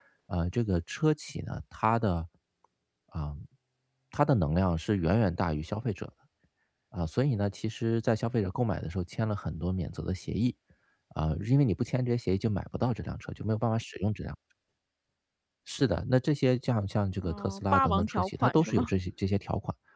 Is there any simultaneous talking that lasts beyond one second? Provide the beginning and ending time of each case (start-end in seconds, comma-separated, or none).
17.2-18.9